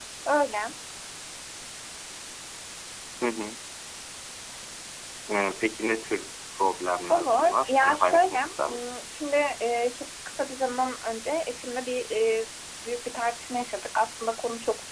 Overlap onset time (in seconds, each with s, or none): 7.0 s